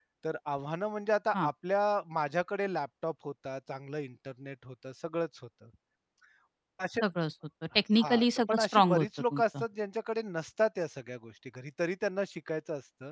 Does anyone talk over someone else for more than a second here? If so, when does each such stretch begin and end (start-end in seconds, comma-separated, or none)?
8.0-9.6